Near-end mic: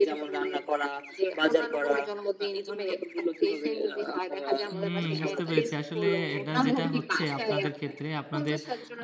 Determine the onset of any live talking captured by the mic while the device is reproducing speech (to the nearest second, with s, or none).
5 s